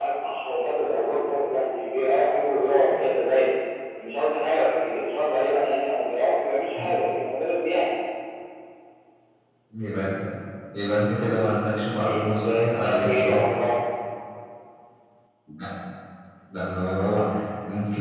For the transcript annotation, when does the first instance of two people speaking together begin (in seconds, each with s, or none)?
12.0 s